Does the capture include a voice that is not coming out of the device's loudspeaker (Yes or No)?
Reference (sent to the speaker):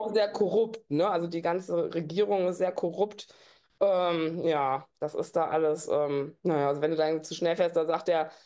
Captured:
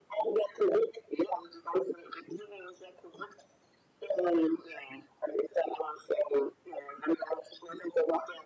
No